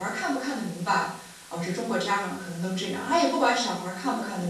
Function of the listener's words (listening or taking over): listening